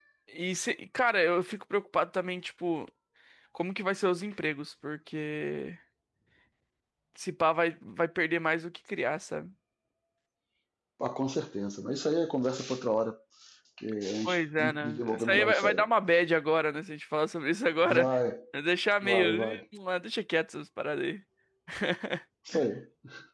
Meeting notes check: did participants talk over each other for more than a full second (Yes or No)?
Yes